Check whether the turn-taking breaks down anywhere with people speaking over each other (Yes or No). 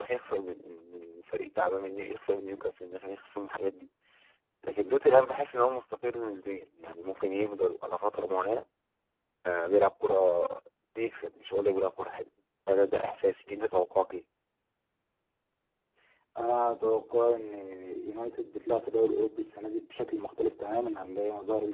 No